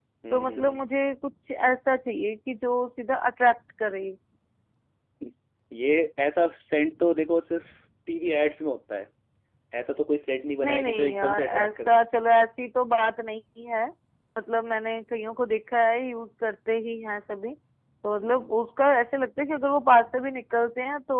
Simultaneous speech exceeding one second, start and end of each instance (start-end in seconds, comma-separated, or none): 10.6-12.0